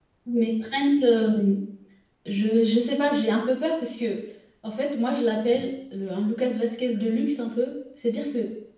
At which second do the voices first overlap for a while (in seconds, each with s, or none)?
none